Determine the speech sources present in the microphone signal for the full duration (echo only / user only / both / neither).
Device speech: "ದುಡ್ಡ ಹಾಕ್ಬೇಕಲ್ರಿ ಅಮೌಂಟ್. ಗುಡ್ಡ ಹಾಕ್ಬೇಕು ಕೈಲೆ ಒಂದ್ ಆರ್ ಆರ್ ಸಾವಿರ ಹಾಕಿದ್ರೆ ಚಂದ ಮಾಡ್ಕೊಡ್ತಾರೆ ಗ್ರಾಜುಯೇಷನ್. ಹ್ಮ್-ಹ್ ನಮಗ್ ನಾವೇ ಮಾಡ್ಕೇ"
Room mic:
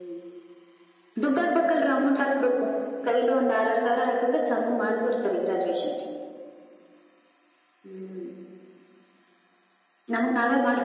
echo only